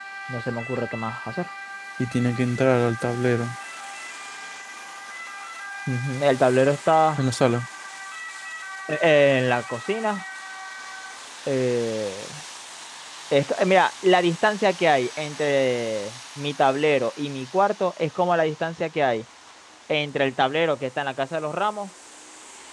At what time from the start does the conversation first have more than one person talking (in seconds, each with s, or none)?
none